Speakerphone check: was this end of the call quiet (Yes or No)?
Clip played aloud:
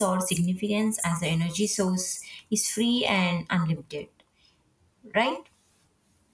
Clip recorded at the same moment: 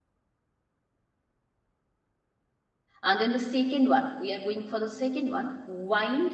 No